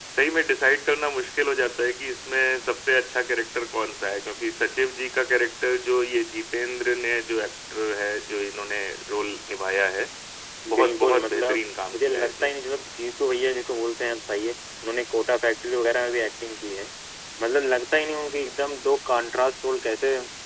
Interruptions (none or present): present